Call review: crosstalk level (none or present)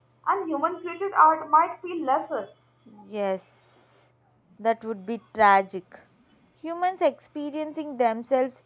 none